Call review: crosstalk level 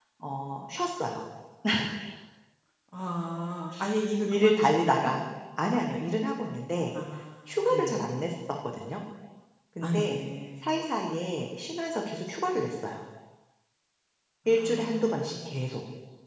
present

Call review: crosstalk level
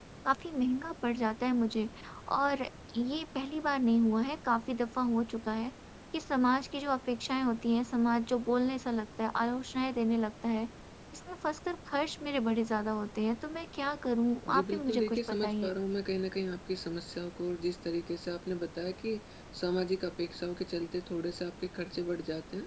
present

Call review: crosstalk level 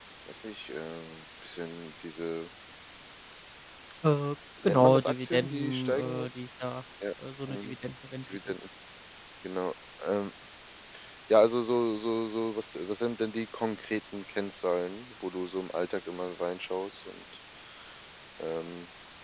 present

